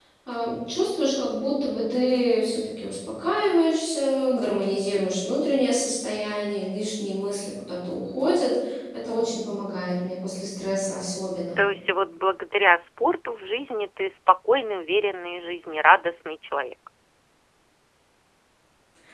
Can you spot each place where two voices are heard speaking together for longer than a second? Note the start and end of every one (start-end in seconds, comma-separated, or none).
none